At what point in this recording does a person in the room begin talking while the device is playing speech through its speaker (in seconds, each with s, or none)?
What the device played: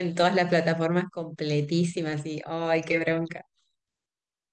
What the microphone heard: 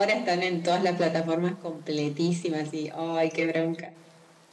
none